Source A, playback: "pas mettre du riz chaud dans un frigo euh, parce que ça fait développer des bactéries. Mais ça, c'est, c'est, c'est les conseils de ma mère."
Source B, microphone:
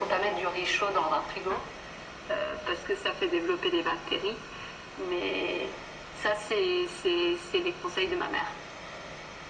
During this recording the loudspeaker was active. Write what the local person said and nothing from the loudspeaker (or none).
none